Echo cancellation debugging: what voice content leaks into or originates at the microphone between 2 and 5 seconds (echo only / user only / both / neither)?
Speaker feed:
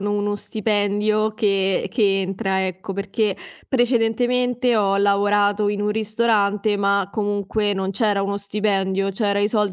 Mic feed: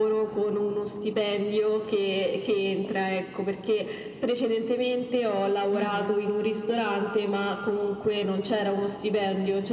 echo only